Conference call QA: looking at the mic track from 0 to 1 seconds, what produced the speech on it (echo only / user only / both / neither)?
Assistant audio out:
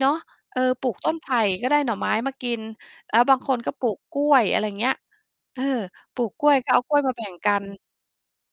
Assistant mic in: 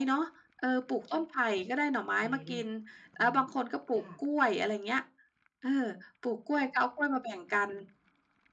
echo only